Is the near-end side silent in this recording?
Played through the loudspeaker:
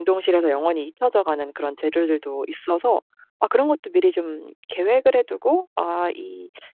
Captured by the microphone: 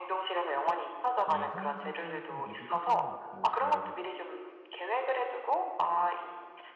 No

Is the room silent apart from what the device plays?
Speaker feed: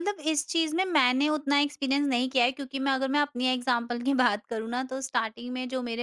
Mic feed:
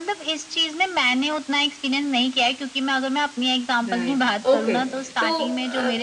No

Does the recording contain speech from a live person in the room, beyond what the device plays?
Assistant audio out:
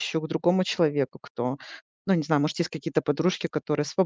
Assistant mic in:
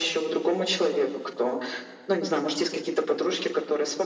No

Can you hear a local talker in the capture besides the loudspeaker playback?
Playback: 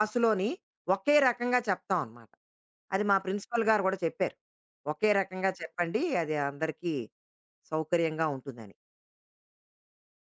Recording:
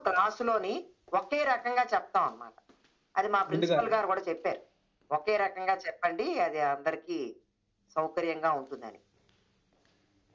Yes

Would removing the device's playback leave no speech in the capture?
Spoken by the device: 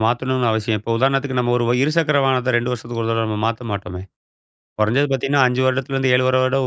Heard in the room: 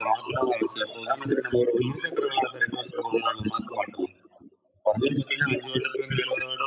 Yes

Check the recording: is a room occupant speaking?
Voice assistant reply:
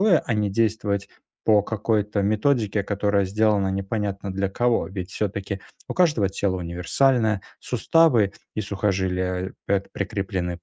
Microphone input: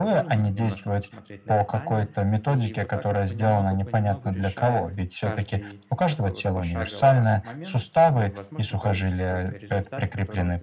Yes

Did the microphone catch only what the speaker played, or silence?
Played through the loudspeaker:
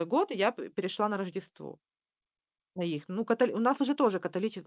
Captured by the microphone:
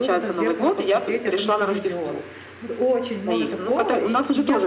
No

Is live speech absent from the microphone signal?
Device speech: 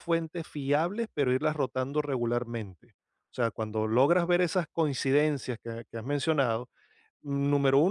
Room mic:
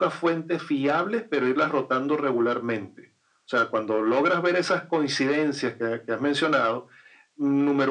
Yes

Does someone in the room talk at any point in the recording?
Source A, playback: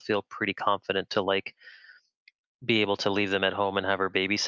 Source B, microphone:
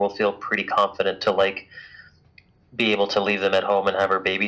No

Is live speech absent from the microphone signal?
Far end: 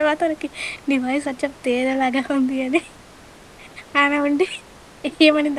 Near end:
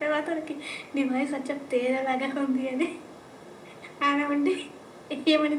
Yes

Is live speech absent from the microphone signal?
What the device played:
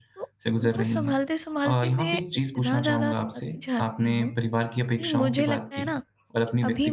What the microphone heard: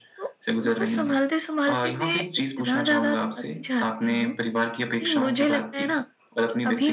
Yes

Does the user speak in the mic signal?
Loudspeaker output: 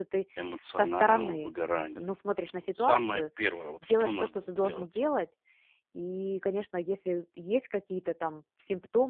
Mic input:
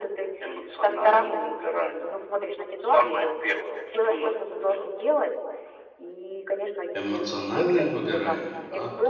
Yes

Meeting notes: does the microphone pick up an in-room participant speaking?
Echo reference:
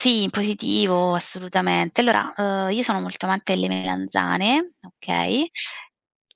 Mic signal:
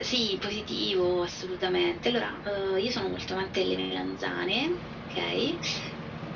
No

